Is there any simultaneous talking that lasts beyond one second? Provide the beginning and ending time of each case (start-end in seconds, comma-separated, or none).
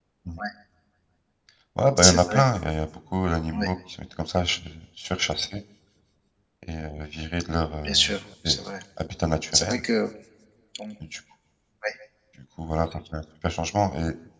none